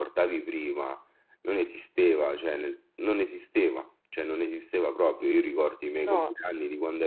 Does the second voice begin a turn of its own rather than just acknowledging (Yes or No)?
No